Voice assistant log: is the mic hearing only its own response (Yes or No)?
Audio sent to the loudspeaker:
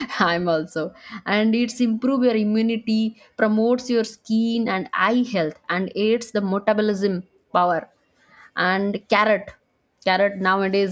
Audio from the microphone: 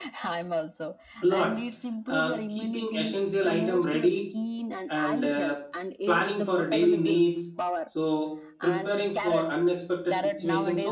No